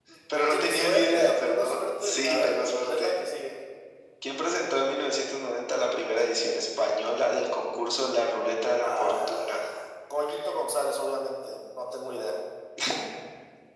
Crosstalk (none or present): present